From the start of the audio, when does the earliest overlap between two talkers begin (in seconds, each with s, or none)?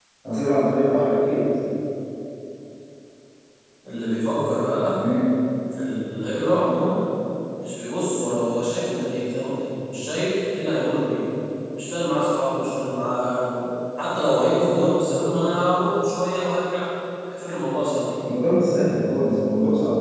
none